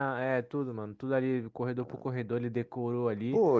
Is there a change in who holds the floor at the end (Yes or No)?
Yes